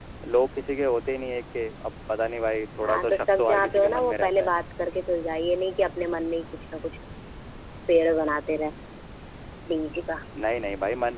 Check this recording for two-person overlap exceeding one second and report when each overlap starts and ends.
2.8-4.5

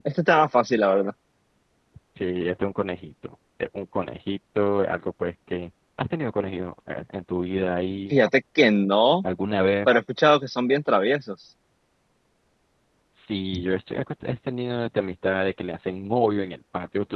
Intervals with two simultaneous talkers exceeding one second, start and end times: none

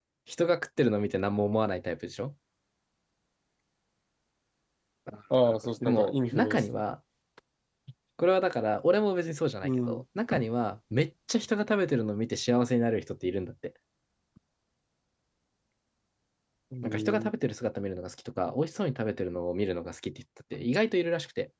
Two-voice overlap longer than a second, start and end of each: 5.4-6.8

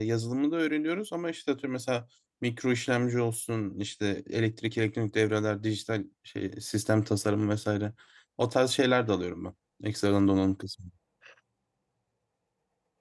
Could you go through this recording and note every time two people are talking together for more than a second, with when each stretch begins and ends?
none

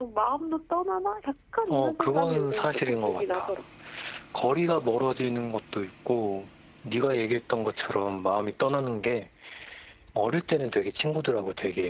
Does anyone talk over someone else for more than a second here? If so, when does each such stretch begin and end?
1.7-3.5

